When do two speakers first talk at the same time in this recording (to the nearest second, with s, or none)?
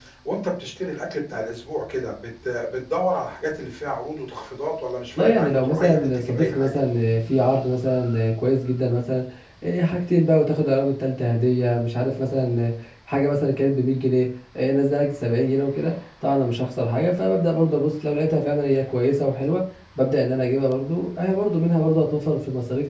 5 s